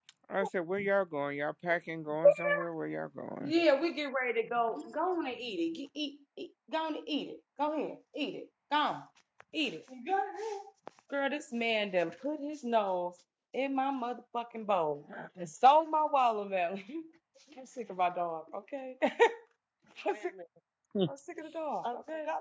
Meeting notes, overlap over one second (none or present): none